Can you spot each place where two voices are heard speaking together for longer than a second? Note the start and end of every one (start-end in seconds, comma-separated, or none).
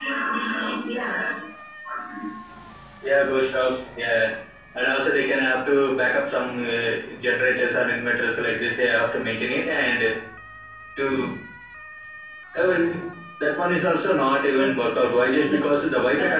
none